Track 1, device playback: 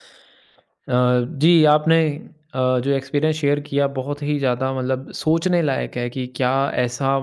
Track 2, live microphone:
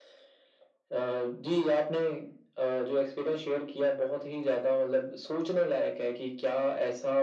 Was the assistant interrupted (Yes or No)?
No